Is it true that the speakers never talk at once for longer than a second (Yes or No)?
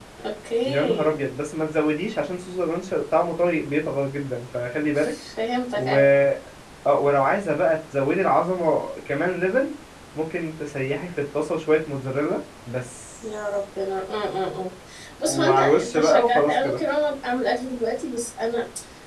No